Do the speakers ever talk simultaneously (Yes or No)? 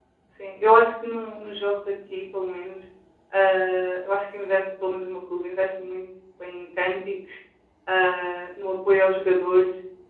No